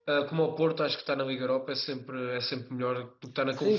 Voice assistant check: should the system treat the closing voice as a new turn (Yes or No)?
Yes